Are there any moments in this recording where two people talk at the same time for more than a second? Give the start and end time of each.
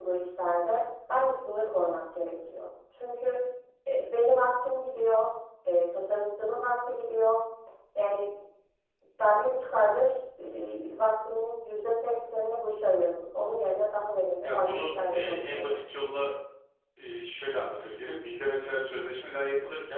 14.4-15.8

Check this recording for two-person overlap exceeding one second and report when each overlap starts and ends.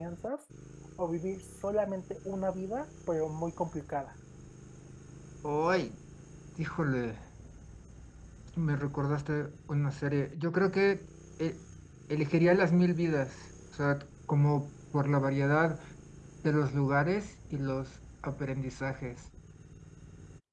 none

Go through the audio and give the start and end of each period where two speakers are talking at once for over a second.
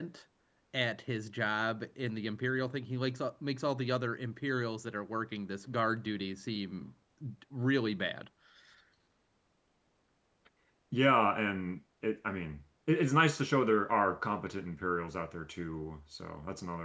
none

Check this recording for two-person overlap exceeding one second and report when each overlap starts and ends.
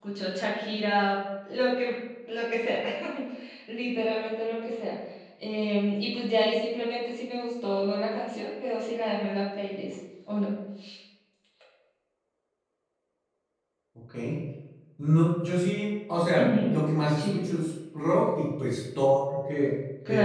none

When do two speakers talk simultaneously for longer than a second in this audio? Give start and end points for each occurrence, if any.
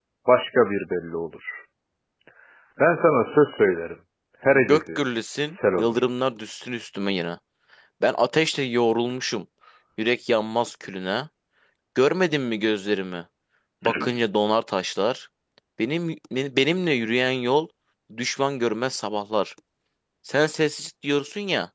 4.5-5.9

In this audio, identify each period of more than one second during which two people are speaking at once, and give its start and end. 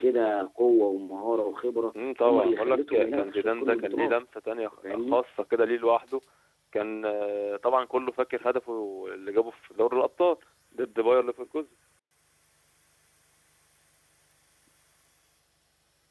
2.2-4.1

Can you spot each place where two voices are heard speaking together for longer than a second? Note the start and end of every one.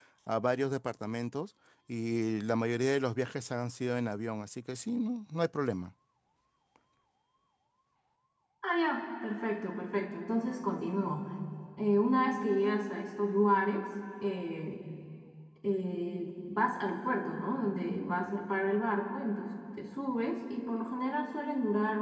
none

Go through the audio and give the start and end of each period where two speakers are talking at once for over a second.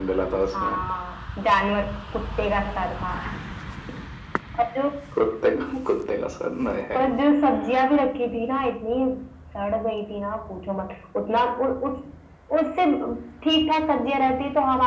none

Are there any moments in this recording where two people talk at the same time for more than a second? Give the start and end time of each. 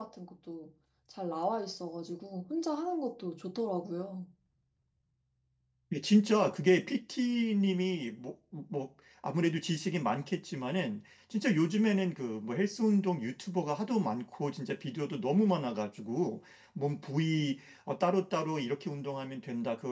none

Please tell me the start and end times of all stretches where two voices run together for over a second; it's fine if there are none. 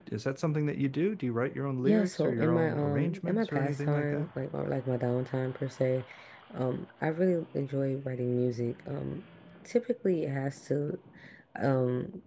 1.8-4.3

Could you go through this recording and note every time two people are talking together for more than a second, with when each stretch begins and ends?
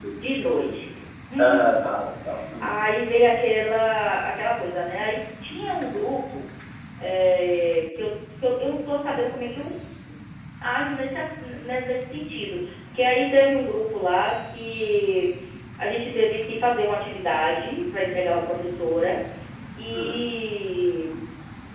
none

